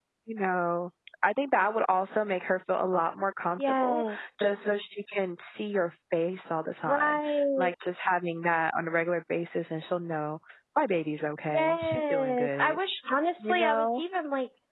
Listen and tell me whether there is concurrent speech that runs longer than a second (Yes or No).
Yes